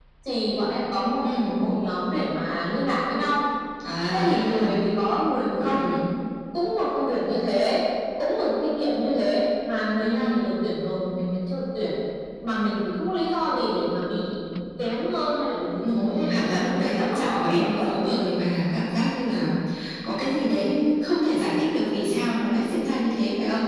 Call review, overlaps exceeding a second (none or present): present